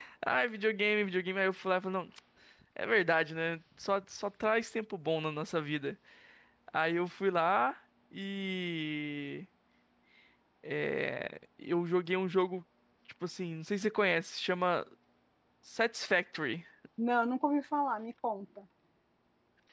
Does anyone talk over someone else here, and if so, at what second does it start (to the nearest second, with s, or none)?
none